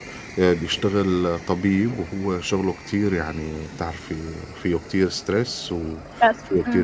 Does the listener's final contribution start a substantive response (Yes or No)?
No